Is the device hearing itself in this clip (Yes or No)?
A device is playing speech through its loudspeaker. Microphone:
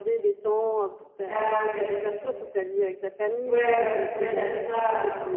Yes